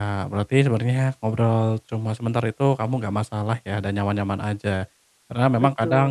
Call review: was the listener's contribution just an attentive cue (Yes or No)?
Yes